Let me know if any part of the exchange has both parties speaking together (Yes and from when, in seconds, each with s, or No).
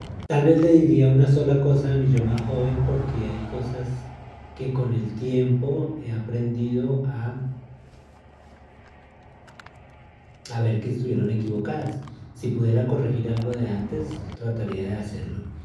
No